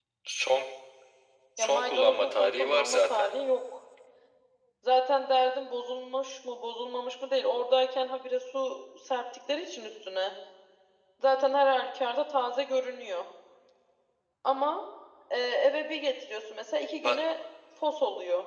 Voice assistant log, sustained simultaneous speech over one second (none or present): present